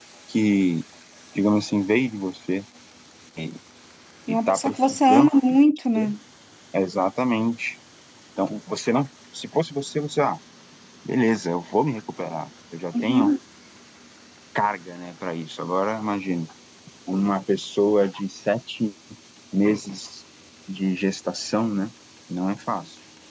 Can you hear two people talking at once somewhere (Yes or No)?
Yes